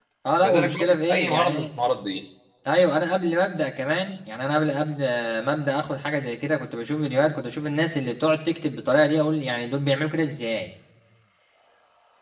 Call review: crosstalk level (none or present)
present